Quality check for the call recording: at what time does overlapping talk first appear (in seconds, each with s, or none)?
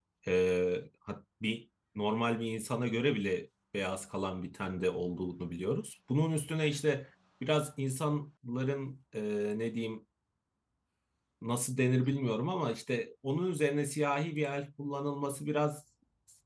none